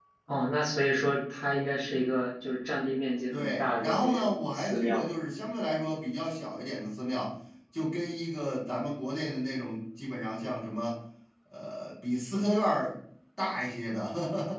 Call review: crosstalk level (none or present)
present